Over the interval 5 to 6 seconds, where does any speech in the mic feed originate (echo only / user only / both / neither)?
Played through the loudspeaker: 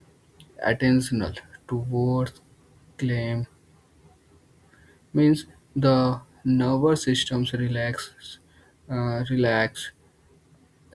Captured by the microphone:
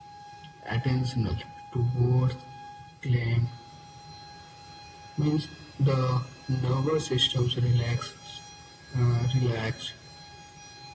echo only